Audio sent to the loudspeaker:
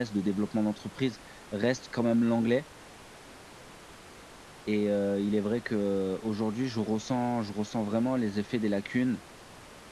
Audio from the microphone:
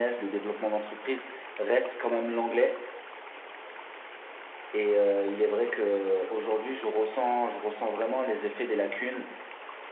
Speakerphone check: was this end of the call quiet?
Yes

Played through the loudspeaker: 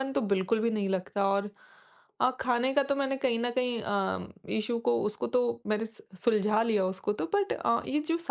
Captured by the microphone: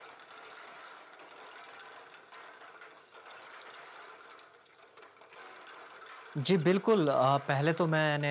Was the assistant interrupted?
Yes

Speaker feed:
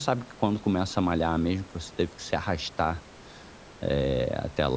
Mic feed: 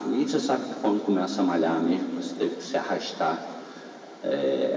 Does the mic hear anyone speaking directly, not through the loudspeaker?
No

